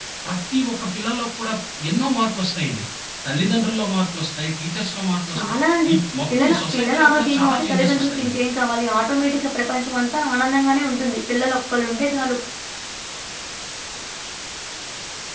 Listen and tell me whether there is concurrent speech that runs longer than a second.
Yes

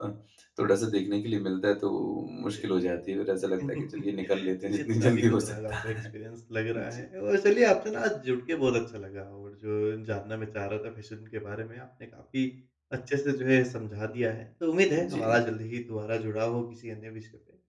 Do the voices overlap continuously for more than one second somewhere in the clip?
Yes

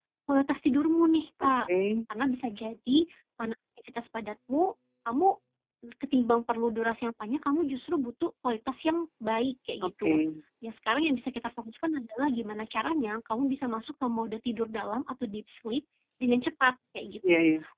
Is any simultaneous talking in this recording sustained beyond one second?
No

